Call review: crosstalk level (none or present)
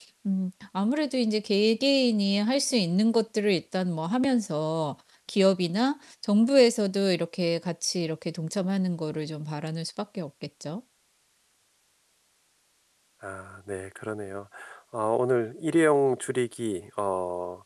none